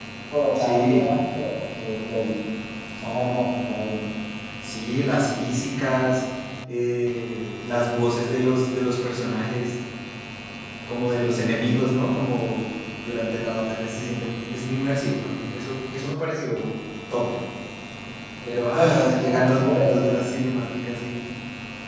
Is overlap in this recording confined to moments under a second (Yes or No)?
No